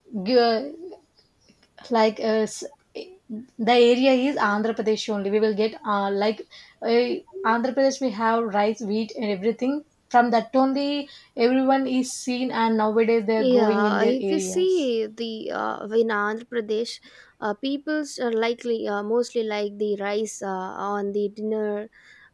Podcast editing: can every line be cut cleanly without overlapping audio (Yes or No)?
No